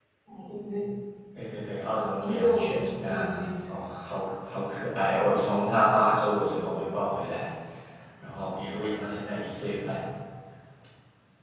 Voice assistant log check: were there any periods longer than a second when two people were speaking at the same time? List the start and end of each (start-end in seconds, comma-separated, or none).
2.2-3.4